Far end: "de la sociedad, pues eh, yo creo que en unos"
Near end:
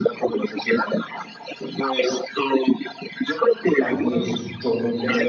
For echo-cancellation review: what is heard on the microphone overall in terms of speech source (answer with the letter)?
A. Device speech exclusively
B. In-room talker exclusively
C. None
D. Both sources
D